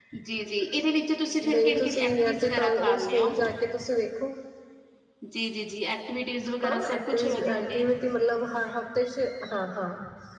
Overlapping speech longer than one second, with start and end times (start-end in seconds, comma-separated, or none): 1.4-3.3, 6.6-7.8